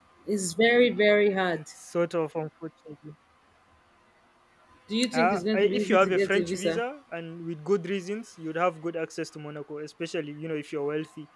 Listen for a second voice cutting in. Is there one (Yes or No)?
Yes